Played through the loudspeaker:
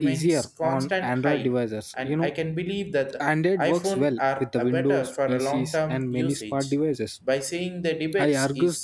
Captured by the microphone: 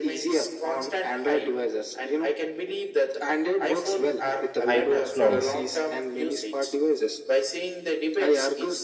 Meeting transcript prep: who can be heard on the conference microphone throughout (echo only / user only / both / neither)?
both